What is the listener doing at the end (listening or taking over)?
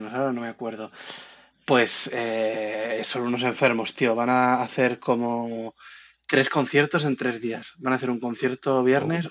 listening